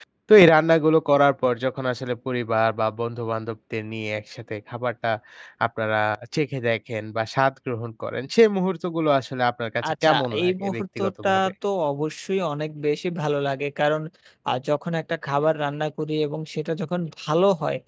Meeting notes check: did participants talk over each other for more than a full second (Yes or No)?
Yes